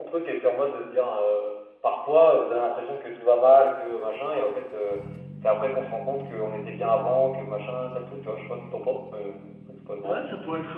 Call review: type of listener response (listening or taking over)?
taking over